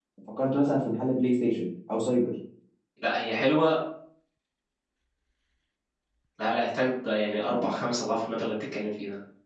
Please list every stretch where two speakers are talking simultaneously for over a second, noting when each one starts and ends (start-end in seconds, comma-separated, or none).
none